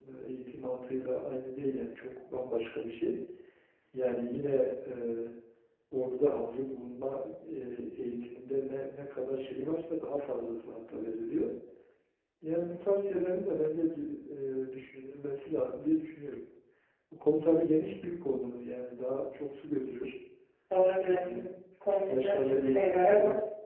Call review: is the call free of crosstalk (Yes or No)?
No